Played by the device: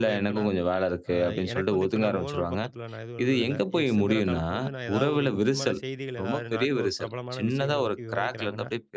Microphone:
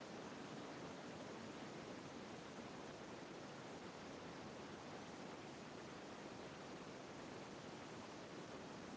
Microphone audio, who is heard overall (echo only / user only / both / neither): neither